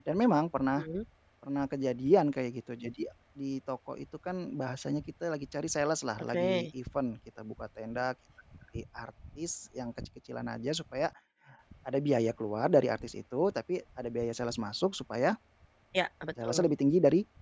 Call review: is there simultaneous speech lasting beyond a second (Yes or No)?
No